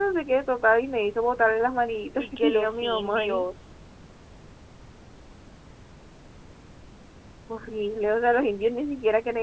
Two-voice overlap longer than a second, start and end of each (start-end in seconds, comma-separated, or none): 2.2-3.5